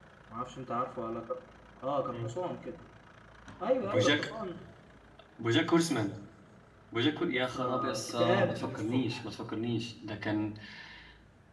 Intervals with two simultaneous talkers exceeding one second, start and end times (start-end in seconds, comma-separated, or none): 7.3-9.2